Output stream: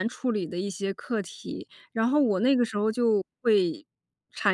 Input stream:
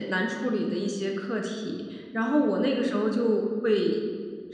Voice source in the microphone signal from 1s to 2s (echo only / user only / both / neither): echo only